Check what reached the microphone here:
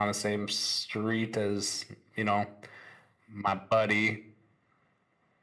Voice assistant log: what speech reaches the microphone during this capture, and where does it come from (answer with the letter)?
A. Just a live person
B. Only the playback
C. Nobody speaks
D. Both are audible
B